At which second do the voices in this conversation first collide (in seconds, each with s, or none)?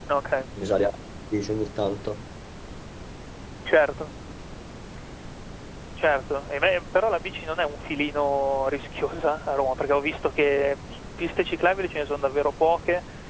none